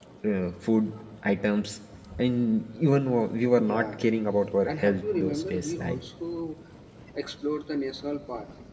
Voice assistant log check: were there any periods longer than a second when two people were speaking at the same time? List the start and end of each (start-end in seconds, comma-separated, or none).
4.7-6.0